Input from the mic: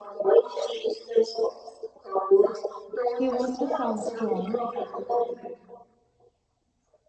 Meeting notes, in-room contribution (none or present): present